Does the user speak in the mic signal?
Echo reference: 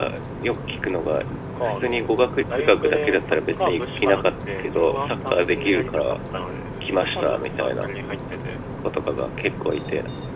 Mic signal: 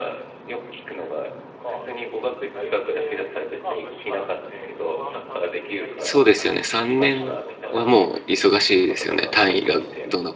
Yes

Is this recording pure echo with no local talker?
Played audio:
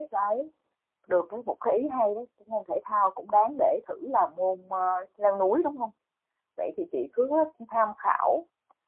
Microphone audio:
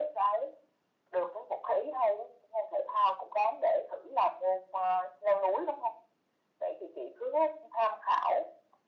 Yes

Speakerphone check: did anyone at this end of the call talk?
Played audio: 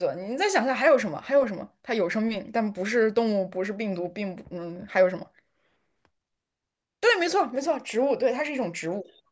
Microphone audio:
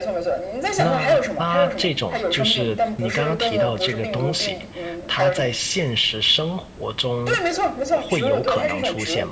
Yes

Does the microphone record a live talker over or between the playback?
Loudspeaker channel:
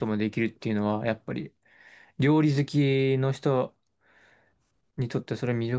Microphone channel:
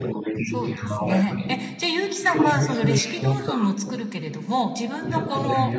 Yes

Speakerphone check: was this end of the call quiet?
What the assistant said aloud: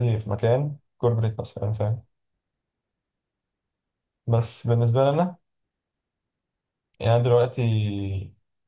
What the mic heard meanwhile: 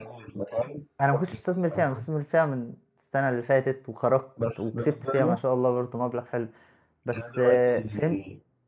No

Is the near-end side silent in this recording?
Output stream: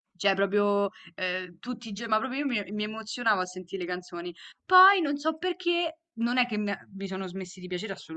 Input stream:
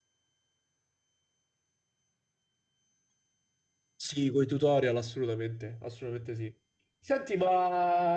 No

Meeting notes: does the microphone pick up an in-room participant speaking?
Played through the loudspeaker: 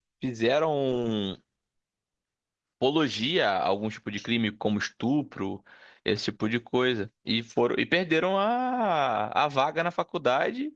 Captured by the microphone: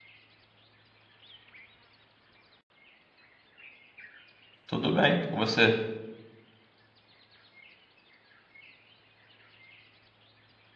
Yes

